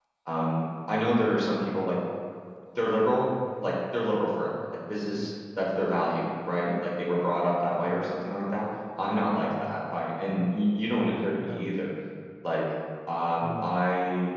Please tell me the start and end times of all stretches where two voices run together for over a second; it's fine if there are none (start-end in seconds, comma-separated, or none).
none